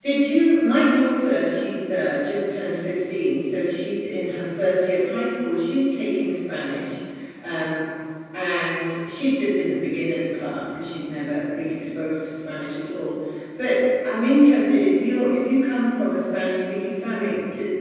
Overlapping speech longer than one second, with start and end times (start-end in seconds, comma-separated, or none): none